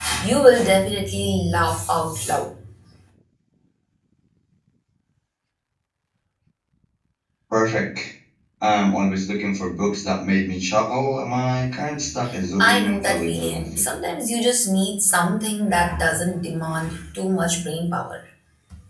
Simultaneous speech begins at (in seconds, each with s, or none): 12.6 s